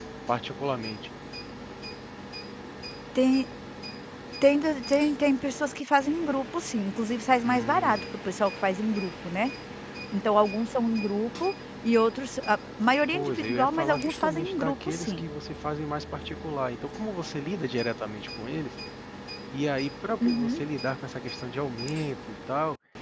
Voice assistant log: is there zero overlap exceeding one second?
No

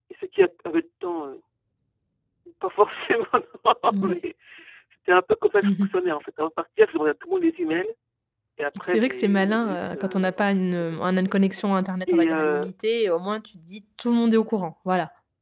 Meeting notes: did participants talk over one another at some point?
Yes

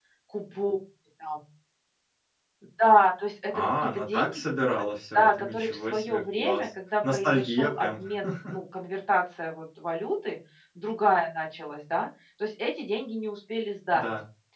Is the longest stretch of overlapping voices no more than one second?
No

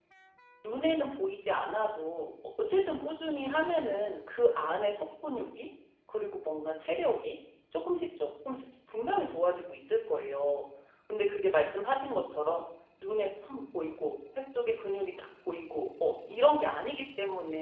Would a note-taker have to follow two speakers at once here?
No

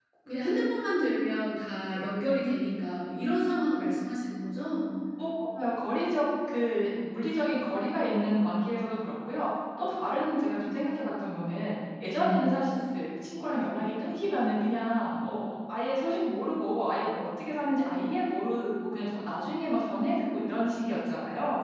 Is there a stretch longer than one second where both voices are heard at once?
No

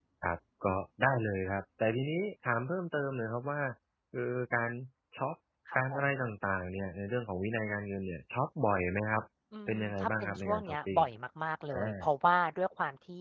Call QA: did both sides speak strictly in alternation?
No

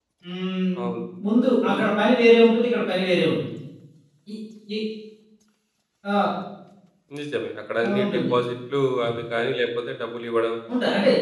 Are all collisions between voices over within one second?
Yes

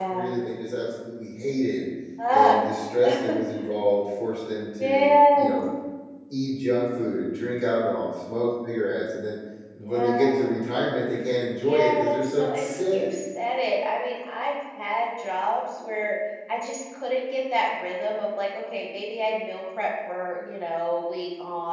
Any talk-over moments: Yes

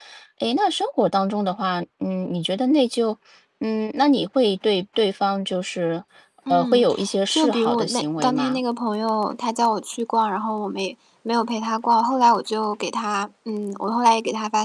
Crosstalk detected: Yes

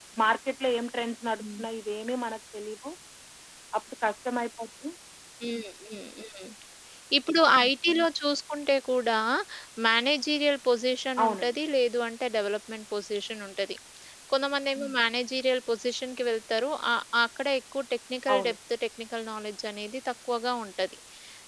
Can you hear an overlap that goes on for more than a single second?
No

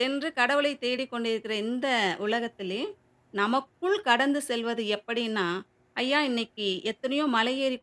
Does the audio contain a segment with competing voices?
No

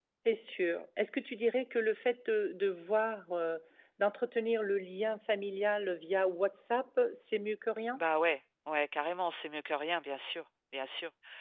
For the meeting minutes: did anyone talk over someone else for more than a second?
No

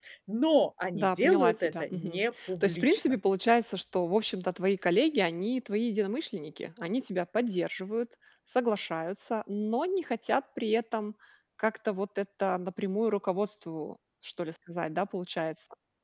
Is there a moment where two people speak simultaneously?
Yes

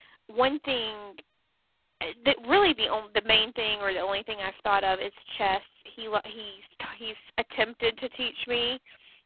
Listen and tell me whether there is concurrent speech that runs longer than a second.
No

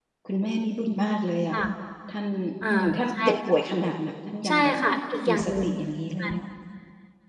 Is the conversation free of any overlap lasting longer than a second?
Yes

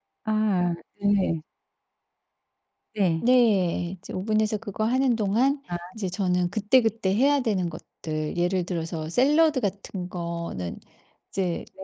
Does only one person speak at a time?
Yes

